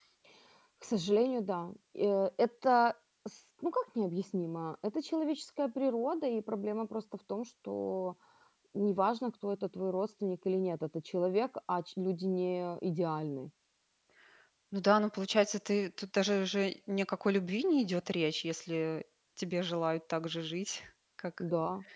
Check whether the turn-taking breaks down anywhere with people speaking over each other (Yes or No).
No